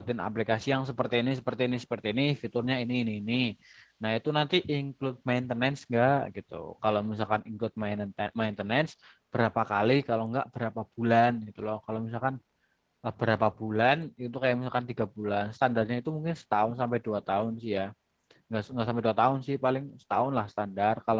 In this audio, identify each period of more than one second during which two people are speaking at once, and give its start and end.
none

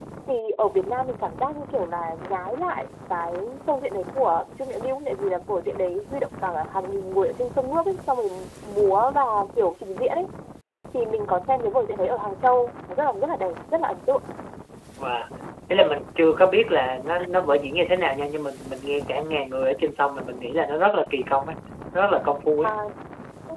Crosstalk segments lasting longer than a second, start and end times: none

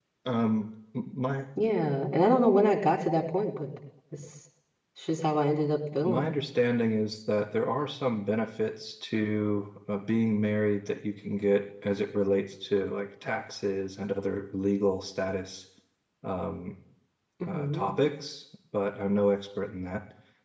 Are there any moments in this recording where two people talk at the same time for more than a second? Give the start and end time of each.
none

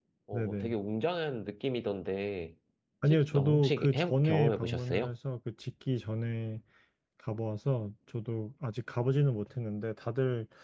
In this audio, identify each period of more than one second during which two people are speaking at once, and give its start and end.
3.1-5.1

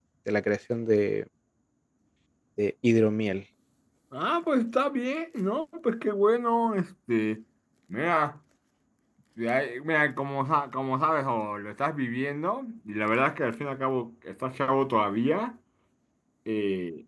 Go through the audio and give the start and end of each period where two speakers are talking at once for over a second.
none

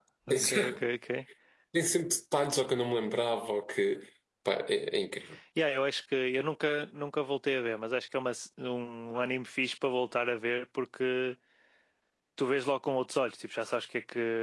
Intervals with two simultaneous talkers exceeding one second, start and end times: none

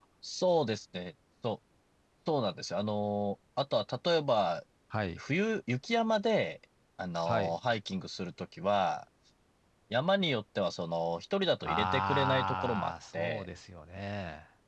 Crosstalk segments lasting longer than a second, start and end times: 11.6-13.5

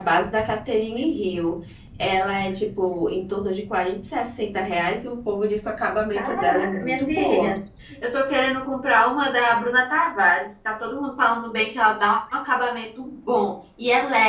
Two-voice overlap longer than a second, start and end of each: 6.2-7.5

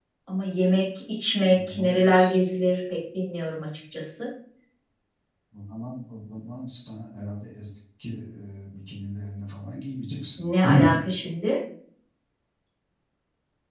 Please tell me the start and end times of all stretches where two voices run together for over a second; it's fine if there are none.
none

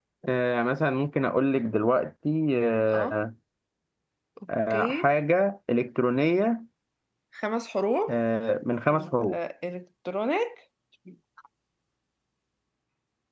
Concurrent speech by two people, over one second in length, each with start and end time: none

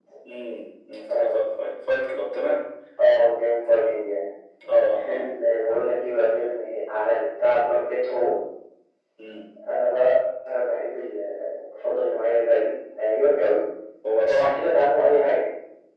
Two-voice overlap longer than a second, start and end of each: none

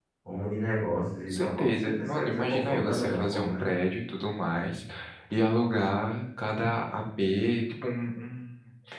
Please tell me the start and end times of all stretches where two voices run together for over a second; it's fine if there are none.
1.3-3.7

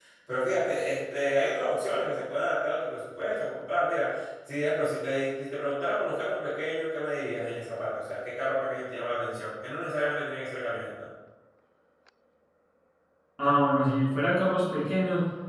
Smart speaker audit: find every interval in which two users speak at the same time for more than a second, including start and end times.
none

